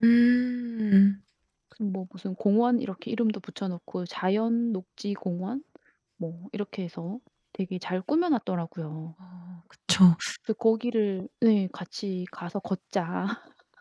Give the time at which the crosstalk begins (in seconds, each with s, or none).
none